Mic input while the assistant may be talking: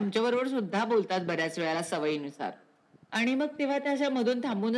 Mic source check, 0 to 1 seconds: echo only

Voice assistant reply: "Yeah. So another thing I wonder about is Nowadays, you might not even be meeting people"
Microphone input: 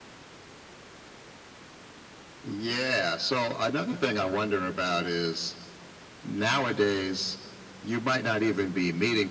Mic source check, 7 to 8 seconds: echo only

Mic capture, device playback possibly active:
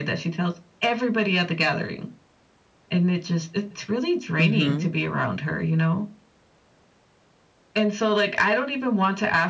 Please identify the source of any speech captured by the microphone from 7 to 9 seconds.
echo only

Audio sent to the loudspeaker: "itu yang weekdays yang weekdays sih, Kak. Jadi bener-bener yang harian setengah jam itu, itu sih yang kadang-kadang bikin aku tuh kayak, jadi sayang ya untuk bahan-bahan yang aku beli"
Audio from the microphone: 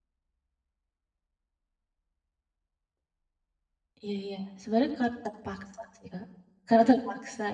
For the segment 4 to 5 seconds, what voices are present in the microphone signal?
user only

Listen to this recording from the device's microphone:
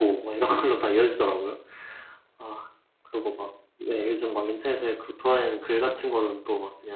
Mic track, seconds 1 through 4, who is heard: user only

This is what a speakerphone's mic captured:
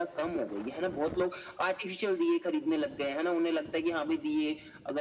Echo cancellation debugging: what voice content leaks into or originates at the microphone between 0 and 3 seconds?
echo only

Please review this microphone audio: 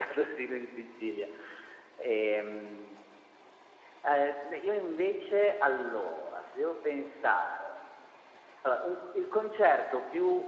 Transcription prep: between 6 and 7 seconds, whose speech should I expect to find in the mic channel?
echo only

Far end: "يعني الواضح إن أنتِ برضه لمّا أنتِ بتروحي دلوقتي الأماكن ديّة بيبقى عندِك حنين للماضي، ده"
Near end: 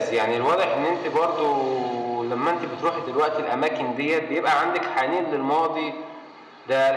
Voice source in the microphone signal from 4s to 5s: echo only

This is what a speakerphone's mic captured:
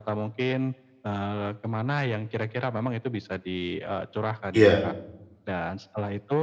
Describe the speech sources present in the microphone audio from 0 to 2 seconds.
echo only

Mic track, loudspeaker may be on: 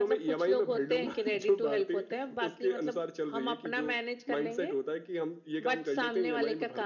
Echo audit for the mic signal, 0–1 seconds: echo only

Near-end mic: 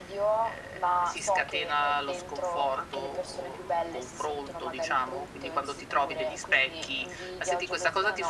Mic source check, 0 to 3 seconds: echo only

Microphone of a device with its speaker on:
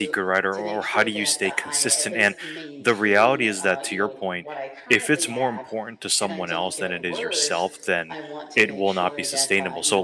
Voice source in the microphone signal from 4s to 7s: both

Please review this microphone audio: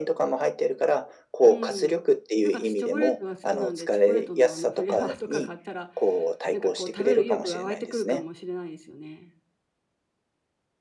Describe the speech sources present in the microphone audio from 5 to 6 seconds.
both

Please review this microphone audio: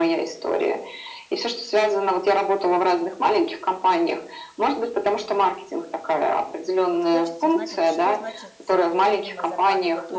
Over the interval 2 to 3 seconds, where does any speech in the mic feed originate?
echo only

